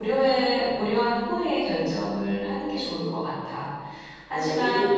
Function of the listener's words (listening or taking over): taking over